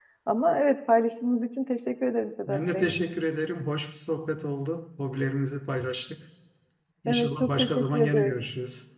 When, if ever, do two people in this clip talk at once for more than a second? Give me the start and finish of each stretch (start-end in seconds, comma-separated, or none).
7.1-8.3